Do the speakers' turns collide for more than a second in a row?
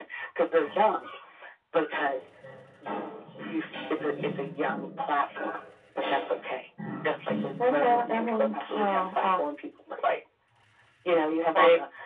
Yes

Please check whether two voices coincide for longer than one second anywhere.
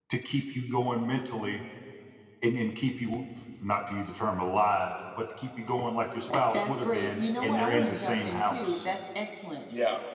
Yes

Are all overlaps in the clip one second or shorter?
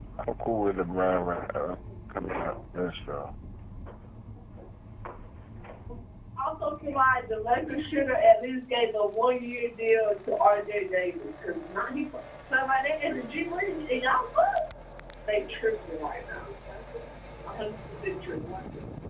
Yes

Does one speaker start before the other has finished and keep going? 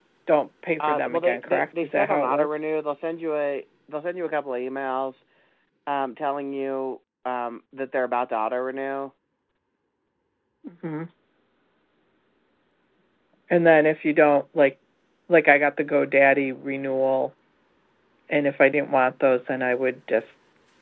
Yes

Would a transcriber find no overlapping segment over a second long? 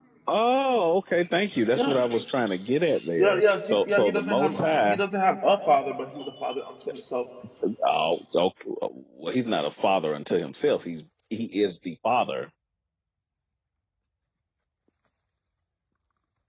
No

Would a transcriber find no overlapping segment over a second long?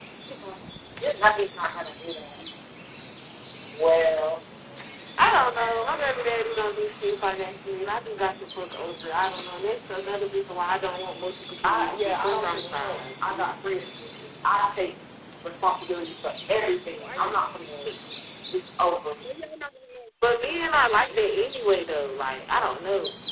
No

